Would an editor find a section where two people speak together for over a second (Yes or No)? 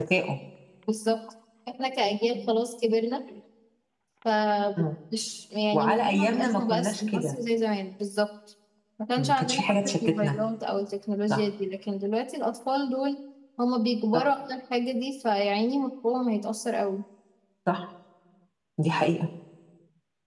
Yes